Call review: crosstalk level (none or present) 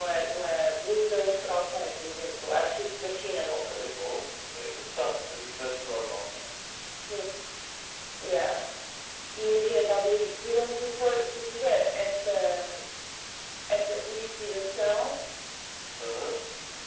none